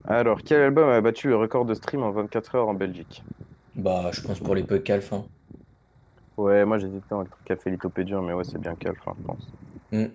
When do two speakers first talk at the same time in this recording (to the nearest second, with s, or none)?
none